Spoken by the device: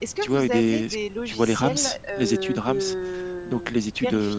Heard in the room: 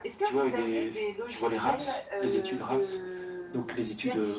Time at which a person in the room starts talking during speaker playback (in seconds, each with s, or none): none